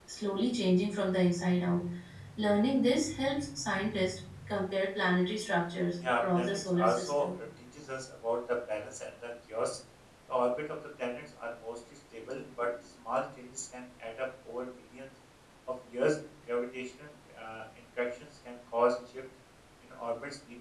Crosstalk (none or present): present